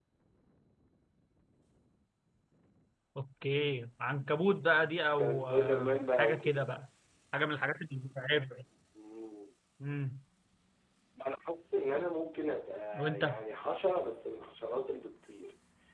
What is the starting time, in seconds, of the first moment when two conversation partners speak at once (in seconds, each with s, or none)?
5.1 s